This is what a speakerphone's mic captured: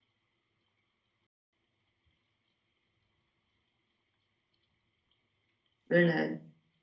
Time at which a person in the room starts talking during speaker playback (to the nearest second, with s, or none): 6 s